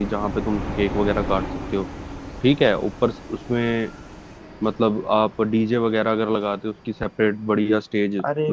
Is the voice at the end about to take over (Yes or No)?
Yes